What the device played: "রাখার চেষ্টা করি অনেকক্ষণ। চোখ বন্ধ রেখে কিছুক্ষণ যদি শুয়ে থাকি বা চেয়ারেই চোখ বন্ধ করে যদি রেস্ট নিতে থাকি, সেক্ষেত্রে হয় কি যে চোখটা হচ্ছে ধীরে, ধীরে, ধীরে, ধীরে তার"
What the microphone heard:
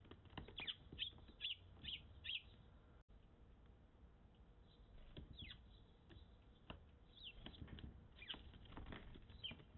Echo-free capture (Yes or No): Yes